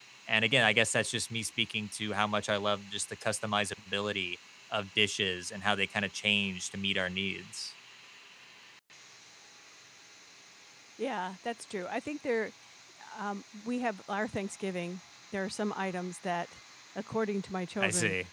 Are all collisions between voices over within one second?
Yes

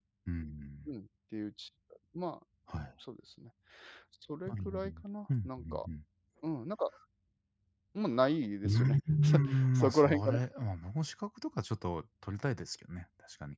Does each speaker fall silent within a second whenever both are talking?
No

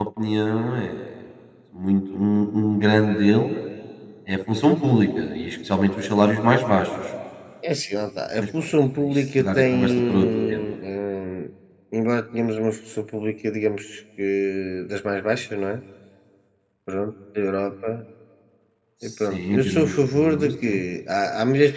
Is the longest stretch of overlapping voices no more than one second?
No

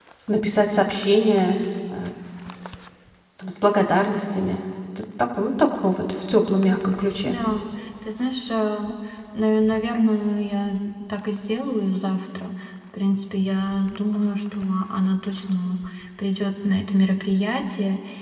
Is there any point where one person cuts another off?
No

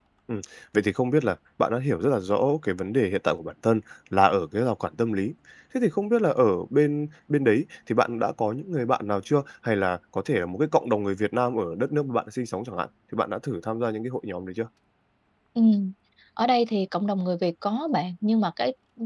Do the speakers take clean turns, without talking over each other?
Yes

